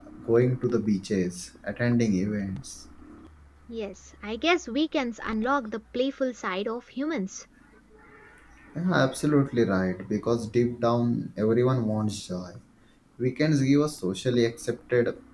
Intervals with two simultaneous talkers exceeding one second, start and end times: none

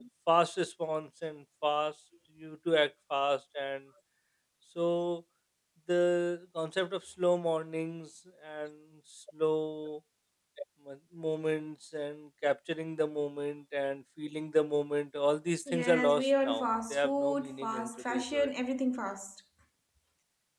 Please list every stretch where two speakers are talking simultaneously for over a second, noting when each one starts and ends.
15.7-18.5

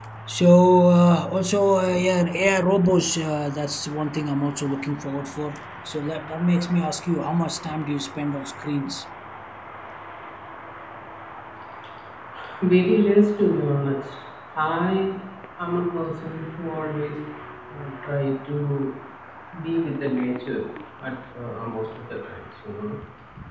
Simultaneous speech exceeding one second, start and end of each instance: none

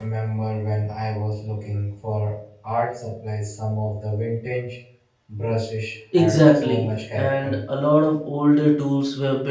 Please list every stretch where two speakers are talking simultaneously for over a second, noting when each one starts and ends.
6.2-7.6

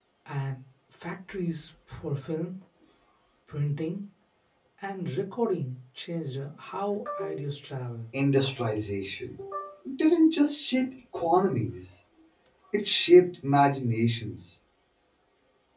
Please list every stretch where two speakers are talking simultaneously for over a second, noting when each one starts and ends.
none

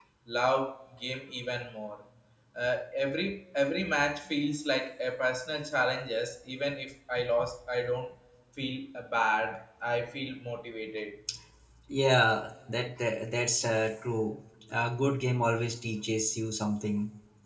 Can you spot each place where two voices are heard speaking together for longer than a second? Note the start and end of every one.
none

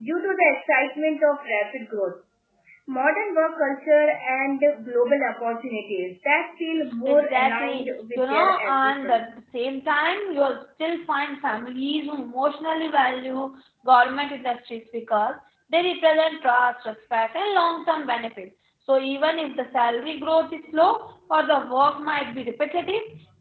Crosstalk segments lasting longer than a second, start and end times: 7.1-9.3

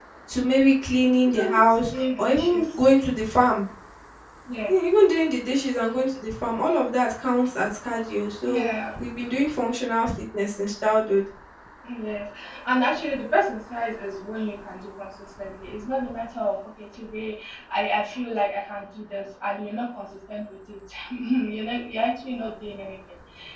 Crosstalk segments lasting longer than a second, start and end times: 1.2-2.6

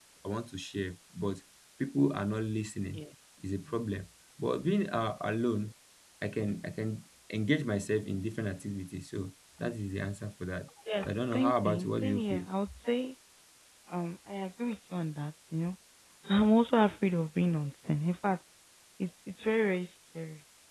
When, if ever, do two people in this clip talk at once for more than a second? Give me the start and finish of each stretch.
11.0-12.4

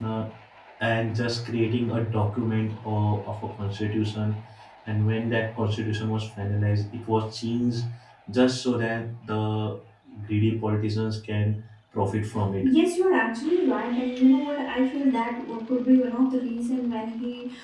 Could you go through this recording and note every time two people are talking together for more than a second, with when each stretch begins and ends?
none

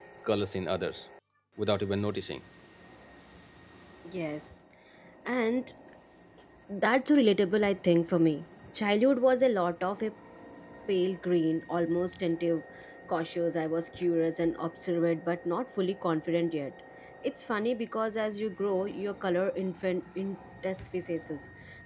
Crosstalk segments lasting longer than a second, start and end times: none

